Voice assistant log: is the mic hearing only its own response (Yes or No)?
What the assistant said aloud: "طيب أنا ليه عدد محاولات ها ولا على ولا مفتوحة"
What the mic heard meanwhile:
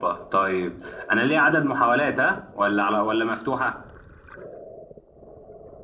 Yes